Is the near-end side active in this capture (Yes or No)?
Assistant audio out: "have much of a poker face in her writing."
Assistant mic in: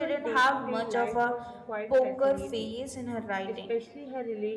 Yes